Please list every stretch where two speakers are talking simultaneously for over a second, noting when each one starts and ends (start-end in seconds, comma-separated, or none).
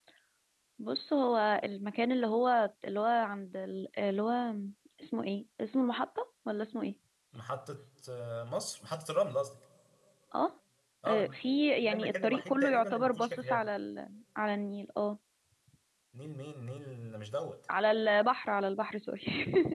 11.8-13.7